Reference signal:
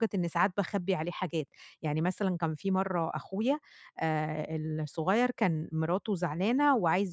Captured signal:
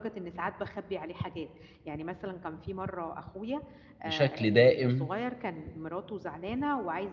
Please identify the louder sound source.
user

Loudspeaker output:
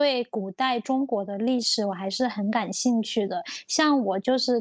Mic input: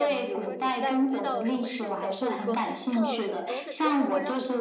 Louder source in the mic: echo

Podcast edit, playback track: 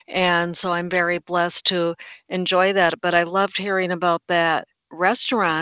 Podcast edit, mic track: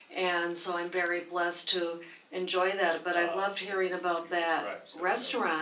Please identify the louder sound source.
echo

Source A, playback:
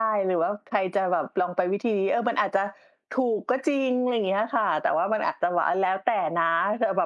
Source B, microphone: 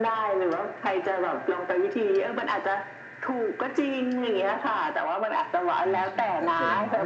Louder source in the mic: echo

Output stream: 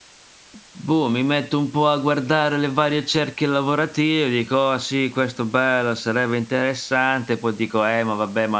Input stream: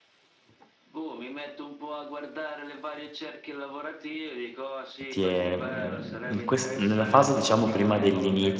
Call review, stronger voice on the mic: user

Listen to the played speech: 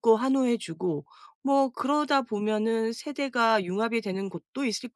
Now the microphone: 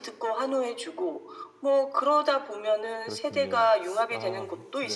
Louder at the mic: echo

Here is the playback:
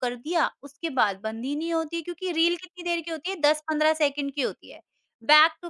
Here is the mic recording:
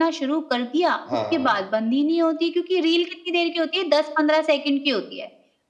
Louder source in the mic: echo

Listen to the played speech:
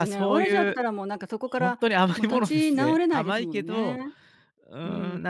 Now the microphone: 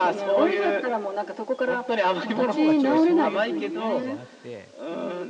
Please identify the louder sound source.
echo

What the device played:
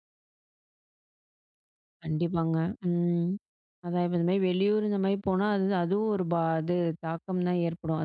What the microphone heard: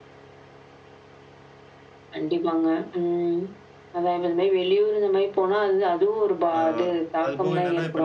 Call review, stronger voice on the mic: echo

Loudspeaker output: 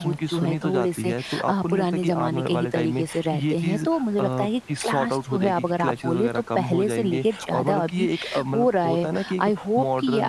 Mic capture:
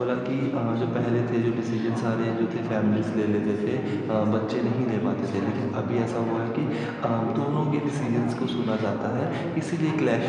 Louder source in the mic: user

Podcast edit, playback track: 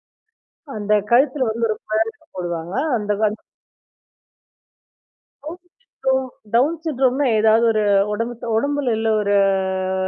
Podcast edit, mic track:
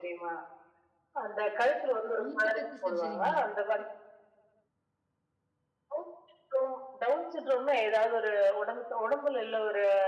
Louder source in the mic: echo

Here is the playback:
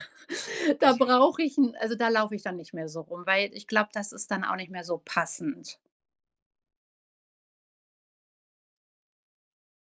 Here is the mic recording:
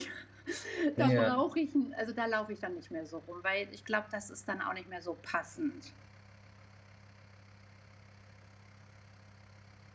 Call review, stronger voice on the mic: user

